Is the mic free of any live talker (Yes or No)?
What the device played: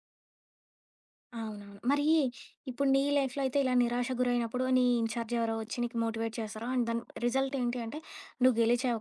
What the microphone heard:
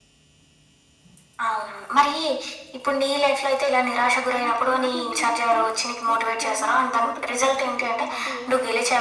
No